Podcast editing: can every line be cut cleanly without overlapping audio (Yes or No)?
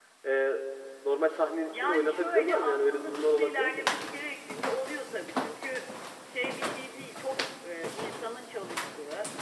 No